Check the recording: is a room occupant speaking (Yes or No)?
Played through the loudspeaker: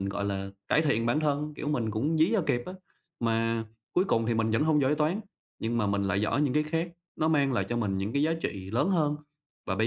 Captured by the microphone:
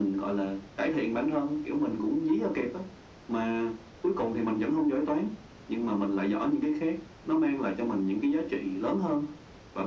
No